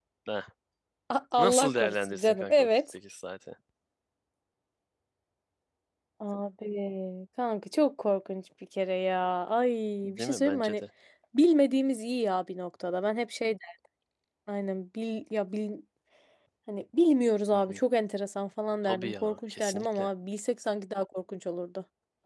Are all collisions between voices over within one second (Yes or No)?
No